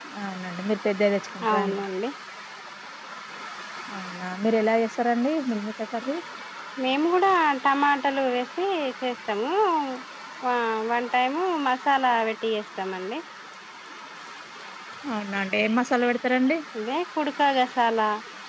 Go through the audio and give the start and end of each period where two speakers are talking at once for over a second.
none

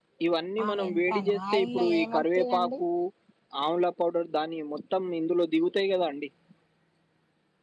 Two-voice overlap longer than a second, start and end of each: 0.6-2.7

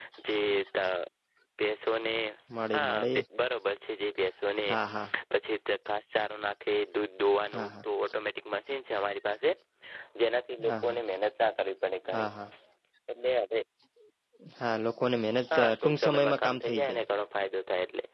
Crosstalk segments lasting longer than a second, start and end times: 15.5-17.0

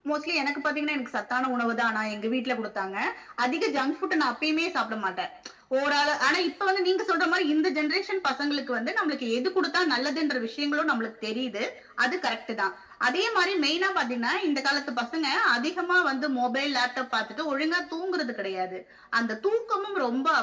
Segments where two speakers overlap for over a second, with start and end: none

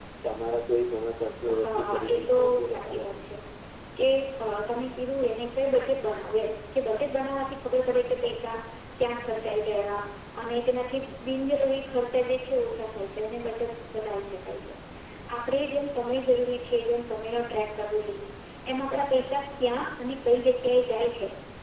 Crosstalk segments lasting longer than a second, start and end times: 1.6-3.1

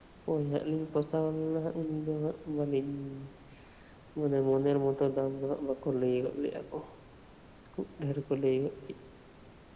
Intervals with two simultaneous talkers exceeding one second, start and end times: none

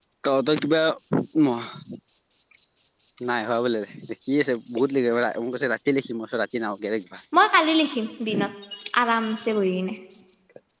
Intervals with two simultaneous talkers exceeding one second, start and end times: none

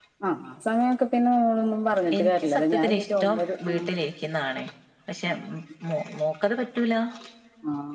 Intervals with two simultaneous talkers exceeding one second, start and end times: 2.2-3.8

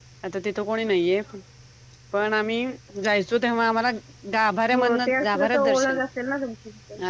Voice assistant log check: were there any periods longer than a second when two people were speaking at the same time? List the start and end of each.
4.7-6.0

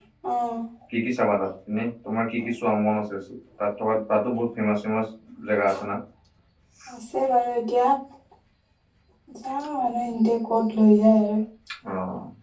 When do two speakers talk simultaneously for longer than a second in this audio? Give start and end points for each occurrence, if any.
none

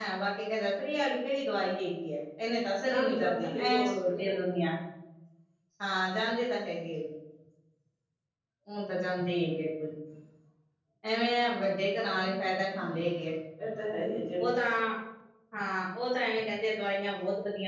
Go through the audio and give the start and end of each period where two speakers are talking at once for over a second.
2.9-4.1

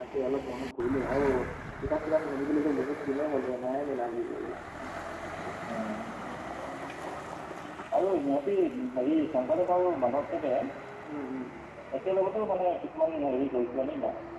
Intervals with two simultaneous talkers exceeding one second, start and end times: none

